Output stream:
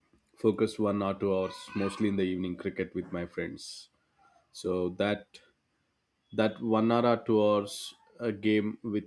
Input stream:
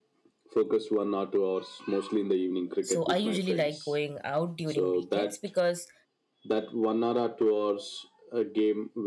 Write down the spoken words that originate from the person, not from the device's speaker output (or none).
So I usually like going out during weekends because